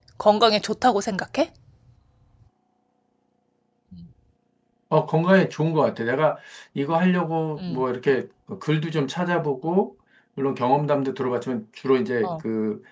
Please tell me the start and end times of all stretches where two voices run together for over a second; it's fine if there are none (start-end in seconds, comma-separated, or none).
none